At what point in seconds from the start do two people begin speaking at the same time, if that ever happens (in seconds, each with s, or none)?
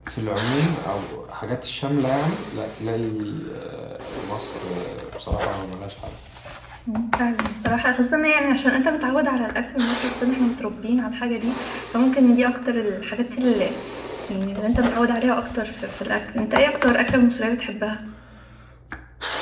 none